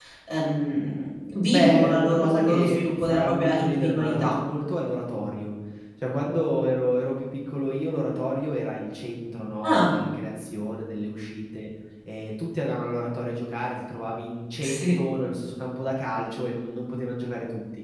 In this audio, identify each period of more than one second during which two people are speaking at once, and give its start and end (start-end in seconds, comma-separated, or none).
1.5-4.4